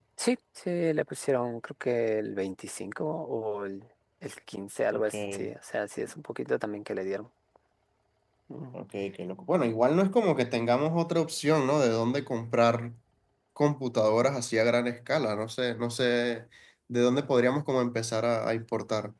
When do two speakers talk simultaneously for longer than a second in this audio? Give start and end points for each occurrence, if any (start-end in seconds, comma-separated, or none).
none